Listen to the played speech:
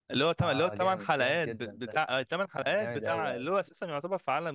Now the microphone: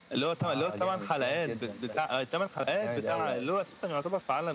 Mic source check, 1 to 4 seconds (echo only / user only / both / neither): echo only